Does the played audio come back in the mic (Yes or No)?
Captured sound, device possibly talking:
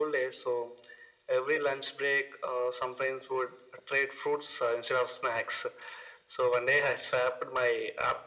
Yes